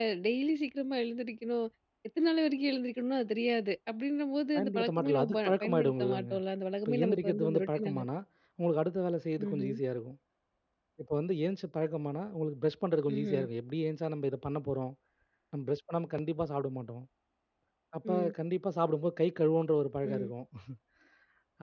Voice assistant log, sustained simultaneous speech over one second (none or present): present